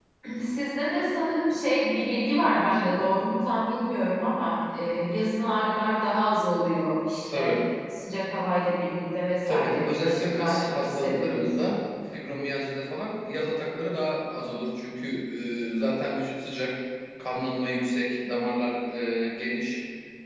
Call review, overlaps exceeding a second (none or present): present